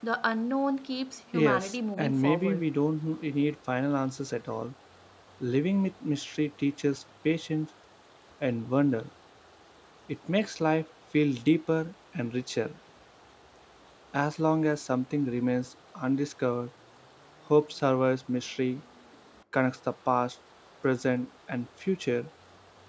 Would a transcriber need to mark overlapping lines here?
Yes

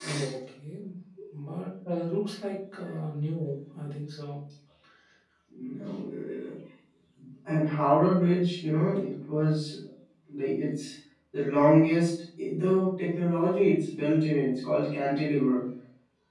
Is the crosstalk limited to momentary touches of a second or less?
Yes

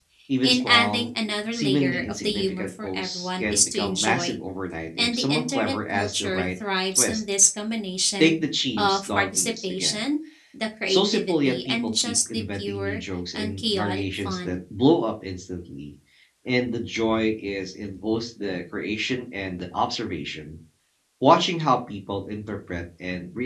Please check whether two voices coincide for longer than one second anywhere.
Yes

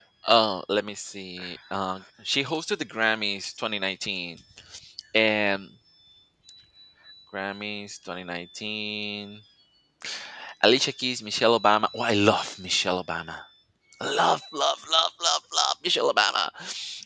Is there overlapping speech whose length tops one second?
No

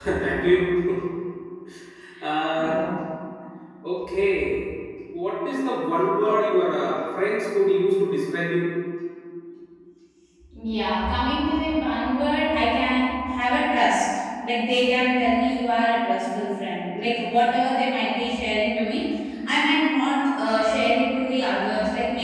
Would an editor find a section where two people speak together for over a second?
No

